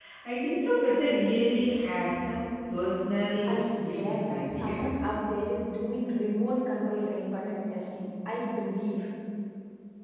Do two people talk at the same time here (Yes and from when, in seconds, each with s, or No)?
Yes, from 3.4 s